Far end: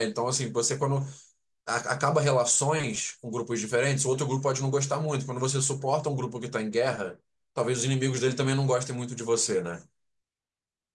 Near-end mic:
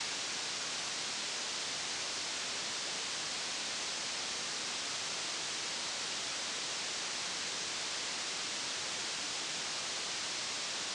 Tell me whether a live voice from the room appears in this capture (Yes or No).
No